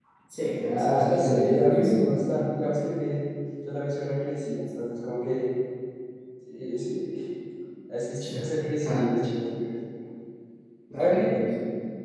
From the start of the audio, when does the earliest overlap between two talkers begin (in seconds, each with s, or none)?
0.7 s